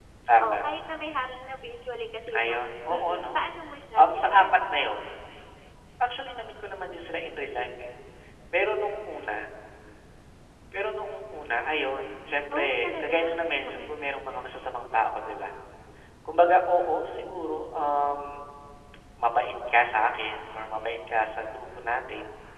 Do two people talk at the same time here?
Yes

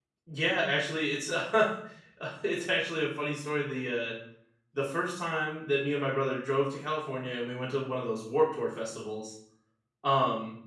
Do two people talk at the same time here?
No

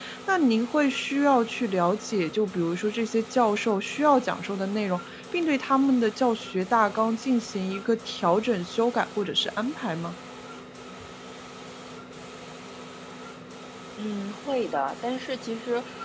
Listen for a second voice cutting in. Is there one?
No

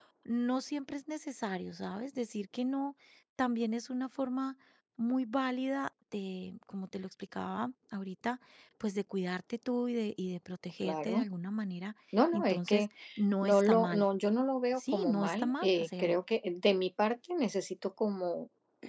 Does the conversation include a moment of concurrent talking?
Yes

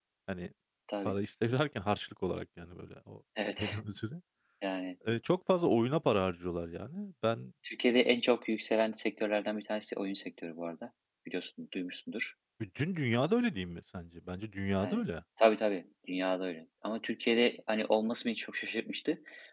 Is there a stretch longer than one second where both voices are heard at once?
No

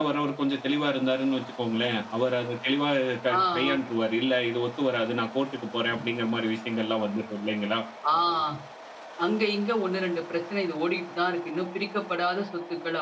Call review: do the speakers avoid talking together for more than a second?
Yes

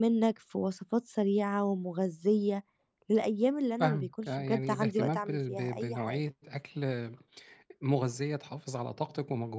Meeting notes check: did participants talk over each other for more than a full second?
Yes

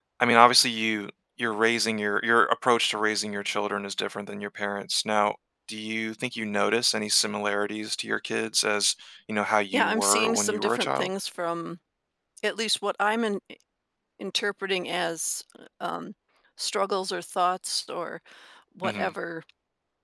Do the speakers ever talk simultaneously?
Yes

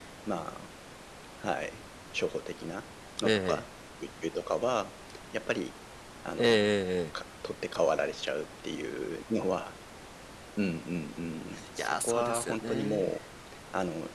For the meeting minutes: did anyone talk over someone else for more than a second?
Yes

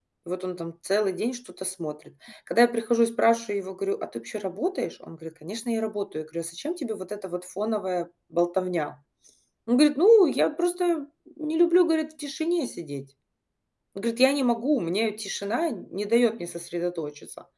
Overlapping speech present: No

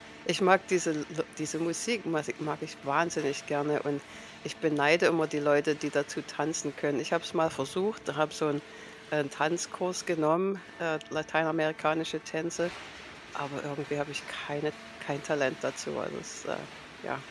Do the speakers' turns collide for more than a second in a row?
No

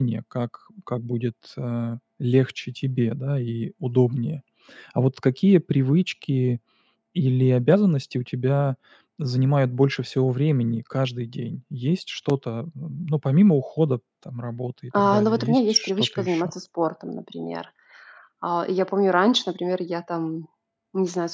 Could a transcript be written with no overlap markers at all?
No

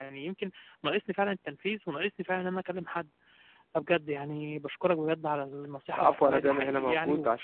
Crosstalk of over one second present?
Yes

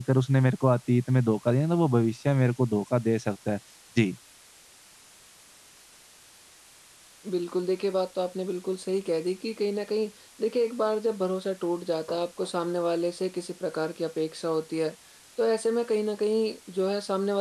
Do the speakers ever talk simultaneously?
No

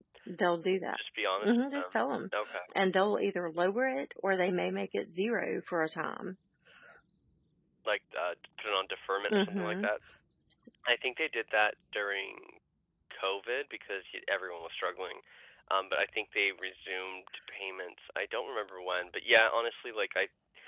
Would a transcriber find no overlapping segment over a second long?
Yes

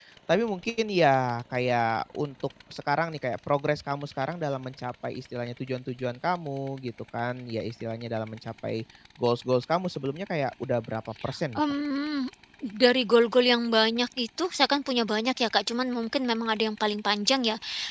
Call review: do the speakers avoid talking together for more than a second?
Yes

